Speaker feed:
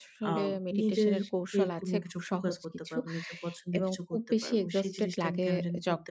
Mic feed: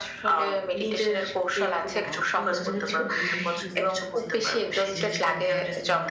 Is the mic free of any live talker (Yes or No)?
No